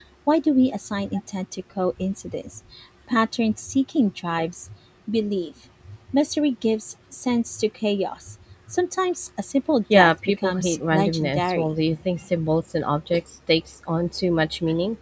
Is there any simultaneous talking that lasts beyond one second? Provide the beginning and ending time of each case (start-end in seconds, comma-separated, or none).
9.9-11.7